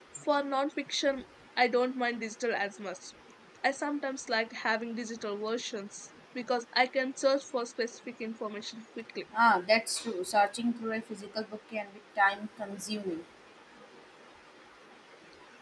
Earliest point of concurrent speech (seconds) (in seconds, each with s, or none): none